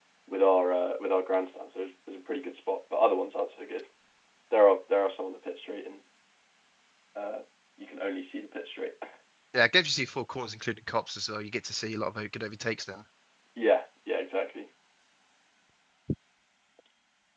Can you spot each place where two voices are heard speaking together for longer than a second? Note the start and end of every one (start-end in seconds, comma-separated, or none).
none